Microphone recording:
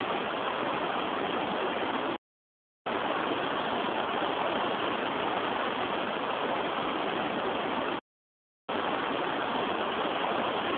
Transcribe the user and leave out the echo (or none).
none